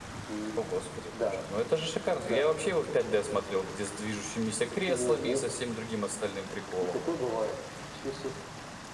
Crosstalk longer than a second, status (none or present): none